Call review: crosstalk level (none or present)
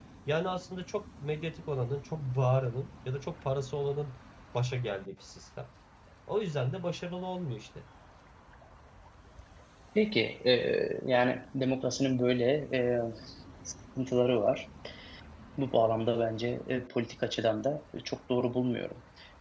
none